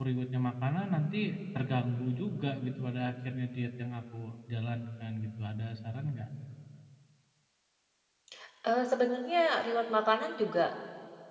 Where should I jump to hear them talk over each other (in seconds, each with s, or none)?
none